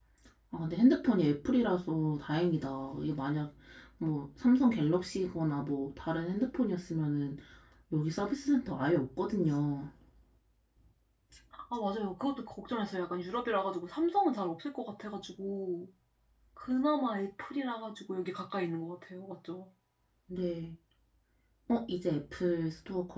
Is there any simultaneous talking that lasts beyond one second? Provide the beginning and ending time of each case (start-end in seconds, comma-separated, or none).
none